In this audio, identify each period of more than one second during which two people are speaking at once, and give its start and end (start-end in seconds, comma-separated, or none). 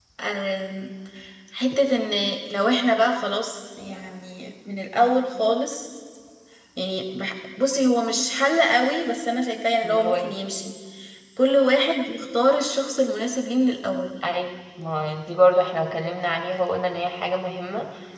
none